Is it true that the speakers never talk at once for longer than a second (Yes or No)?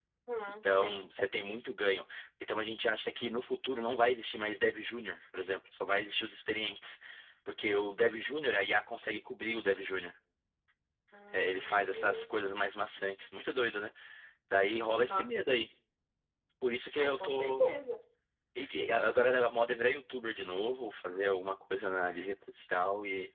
No